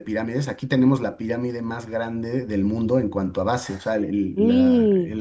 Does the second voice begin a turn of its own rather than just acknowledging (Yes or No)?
No